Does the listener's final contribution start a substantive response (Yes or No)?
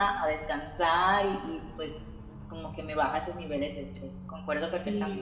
Yes